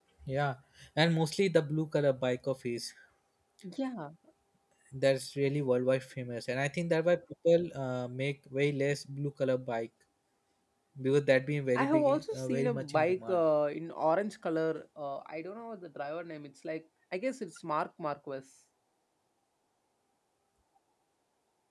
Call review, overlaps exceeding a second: present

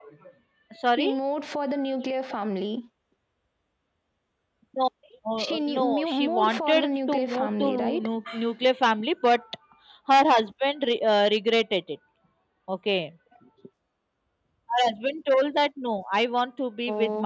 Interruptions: present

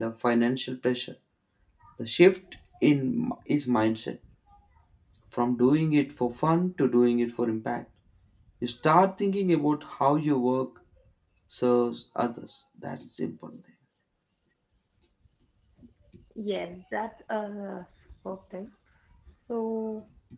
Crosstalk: none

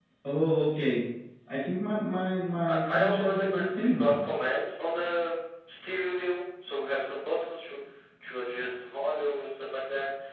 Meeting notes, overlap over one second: present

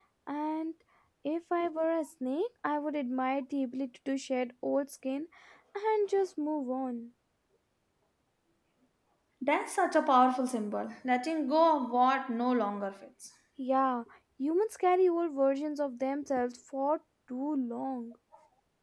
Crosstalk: none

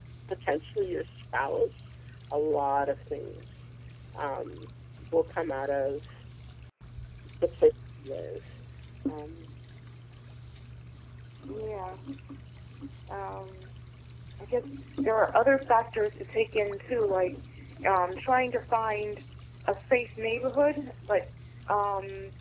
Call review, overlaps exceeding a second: none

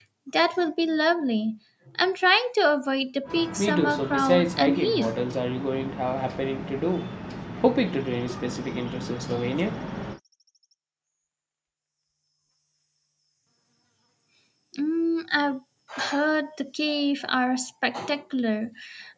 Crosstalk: present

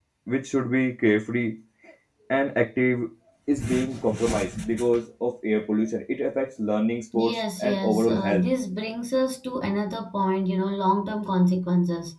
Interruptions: present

